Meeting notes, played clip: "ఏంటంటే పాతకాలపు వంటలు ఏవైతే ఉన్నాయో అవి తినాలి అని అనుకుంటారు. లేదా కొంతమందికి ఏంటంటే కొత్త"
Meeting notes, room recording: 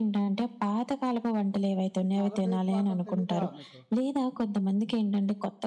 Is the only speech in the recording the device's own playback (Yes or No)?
No